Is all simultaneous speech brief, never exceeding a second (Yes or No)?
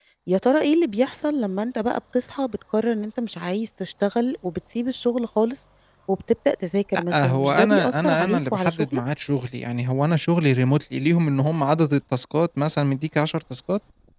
No